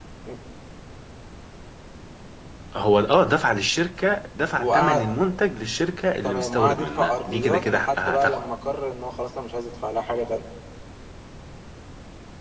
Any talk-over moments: Yes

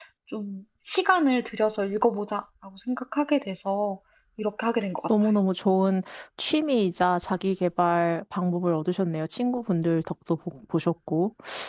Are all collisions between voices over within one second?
Yes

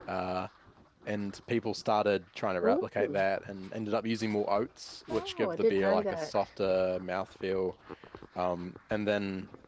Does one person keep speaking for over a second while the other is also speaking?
Yes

